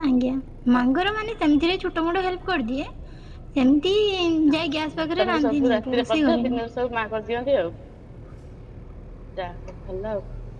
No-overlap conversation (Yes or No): No